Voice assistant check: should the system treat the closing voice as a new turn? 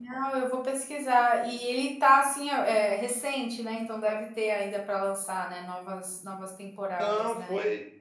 Yes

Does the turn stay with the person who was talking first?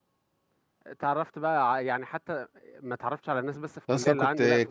No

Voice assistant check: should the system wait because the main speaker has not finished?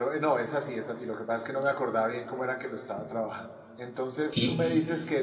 Yes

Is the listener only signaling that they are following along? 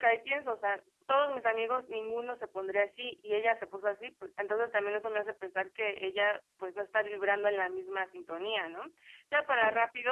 Yes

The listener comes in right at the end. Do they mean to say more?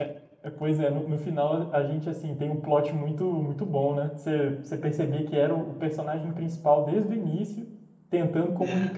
No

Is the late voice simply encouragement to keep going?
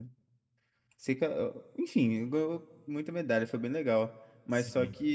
Yes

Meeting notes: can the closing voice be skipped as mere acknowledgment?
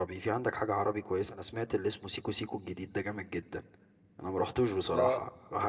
Yes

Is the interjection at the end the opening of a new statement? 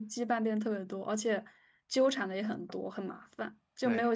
No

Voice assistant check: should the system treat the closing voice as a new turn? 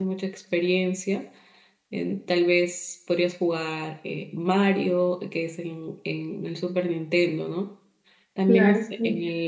No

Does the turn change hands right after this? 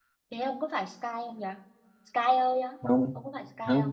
Yes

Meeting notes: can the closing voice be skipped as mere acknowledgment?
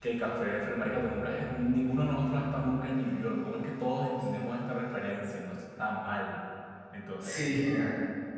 No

